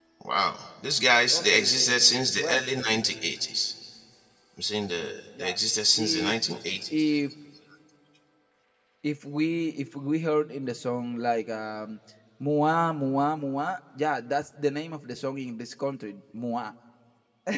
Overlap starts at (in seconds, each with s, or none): 1.3 s